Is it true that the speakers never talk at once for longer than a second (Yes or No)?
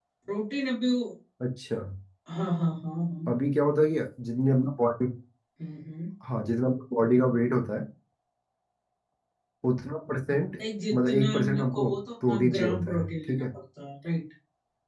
No